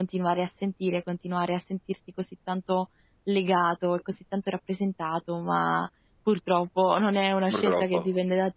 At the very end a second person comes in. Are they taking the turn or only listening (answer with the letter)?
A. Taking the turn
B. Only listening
B